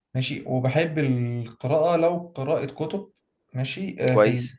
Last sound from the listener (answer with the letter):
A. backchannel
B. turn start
A